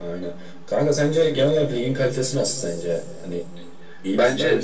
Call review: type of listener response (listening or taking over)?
taking over